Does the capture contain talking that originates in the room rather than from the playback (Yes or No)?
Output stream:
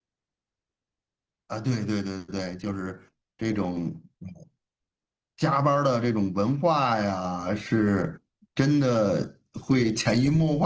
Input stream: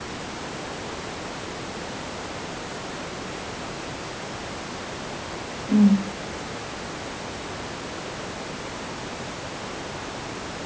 Yes